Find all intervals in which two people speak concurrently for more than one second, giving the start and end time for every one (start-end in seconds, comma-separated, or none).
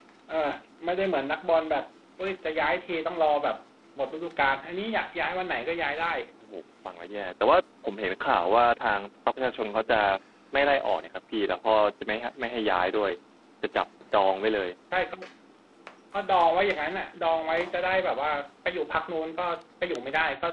none